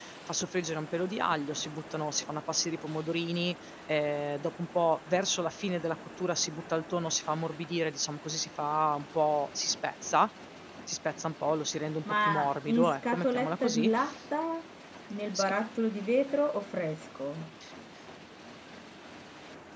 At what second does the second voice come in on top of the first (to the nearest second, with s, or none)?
12 s